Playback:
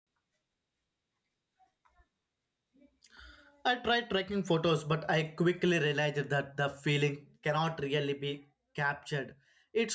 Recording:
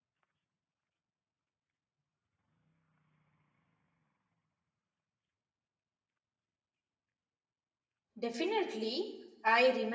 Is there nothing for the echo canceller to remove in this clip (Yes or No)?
Yes